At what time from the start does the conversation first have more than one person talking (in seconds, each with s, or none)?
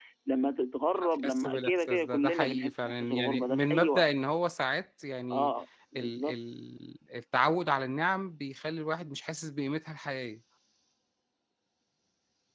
1.0 s